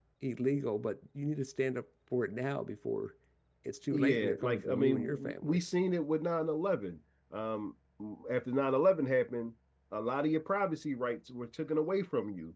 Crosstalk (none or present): present